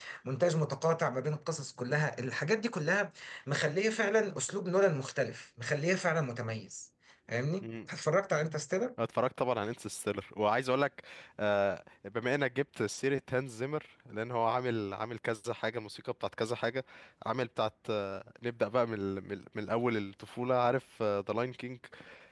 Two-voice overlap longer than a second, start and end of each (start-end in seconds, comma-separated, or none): none